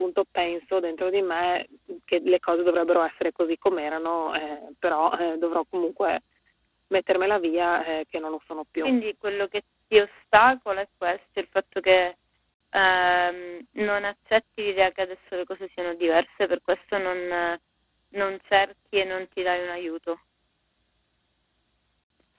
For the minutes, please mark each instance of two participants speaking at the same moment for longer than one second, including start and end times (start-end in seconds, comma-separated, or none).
none